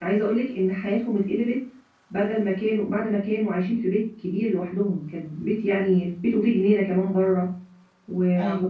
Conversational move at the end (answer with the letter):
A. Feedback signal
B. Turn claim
A